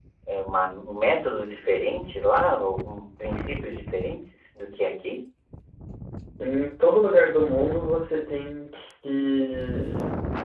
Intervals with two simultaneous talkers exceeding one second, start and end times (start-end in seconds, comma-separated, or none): none